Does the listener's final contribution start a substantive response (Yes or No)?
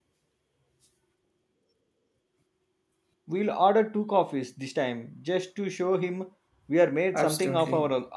Yes